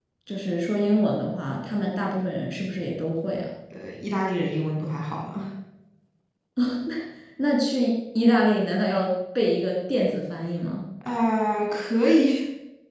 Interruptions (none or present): none